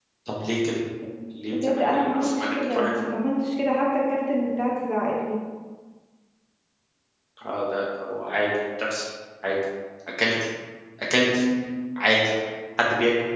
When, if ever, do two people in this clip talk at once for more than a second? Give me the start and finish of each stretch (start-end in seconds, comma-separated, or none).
1.5-2.9